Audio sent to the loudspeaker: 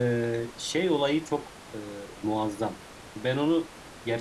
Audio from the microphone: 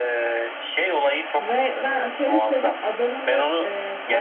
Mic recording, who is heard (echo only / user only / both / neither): both